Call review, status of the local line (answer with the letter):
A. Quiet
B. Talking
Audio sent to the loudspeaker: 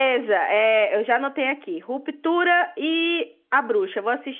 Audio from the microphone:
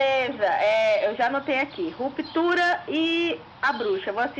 A